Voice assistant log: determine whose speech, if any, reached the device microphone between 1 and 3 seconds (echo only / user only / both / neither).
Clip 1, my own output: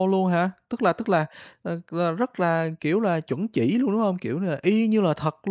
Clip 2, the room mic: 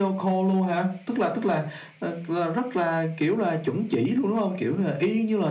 echo only